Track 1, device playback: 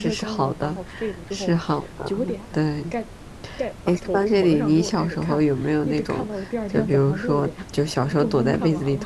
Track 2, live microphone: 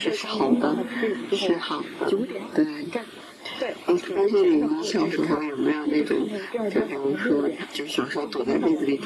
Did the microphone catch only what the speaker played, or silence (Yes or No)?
No